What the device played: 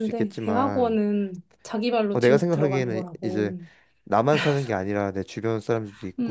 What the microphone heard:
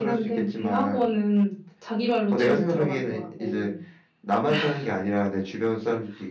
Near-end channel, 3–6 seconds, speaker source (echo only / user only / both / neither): echo only